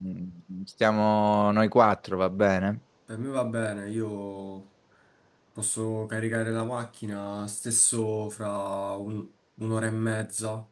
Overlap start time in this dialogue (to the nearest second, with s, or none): none